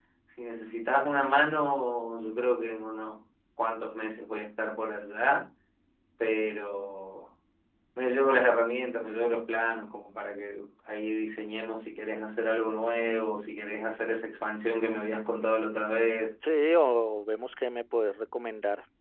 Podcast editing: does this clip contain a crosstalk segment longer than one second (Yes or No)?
No